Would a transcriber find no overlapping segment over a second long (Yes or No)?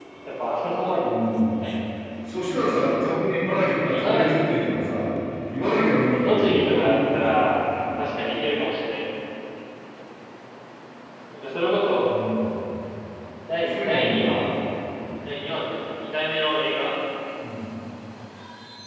No